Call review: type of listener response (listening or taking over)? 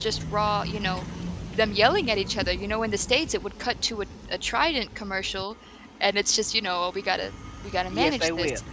taking over